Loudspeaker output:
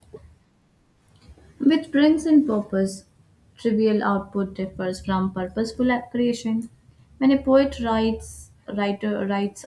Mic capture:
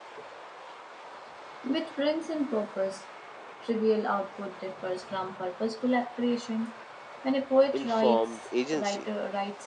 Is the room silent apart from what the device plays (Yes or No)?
No